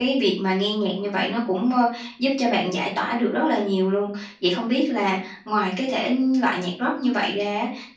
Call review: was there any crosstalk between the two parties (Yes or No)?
No